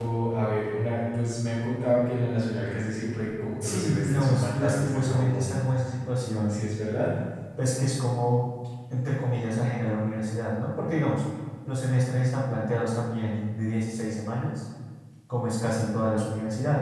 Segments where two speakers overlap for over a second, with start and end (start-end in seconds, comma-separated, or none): 3.6-5.5